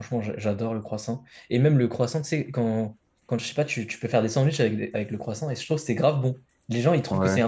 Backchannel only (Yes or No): Yes